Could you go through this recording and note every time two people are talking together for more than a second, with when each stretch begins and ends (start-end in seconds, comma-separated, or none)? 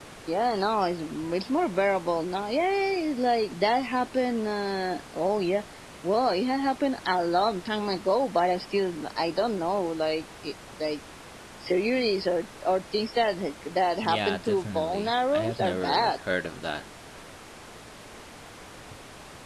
14.0-16.1